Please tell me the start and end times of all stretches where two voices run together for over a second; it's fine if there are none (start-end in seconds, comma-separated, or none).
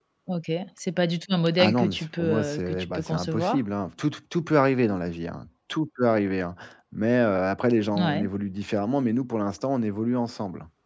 1.6-3.6